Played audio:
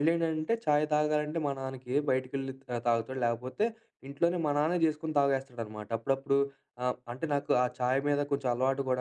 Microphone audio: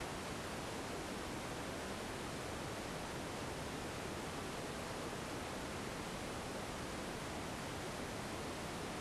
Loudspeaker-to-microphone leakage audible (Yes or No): No